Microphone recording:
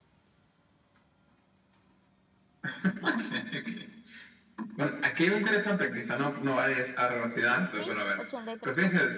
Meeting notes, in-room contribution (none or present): present